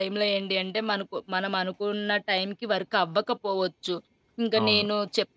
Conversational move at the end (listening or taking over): listening